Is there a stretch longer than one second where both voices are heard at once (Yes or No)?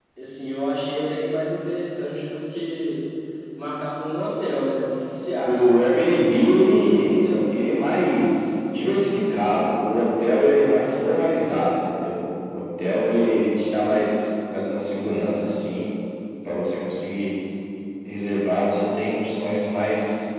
Yes